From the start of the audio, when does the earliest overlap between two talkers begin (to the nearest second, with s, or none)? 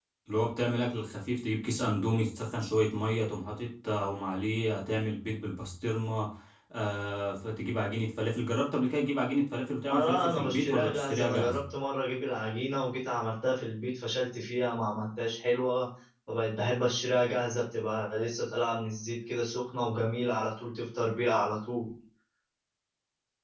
10 s